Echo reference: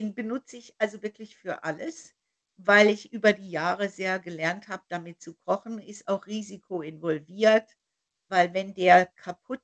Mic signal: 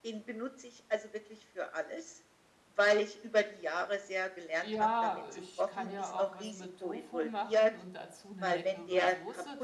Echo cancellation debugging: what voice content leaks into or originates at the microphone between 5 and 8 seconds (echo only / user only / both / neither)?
both